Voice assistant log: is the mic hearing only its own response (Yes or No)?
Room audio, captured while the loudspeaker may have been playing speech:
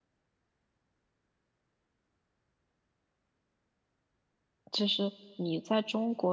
No